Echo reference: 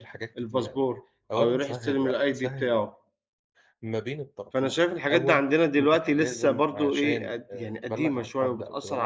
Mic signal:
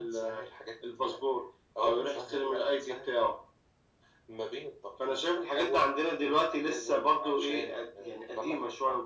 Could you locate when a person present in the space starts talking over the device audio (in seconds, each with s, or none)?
none